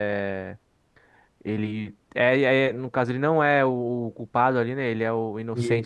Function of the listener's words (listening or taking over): listening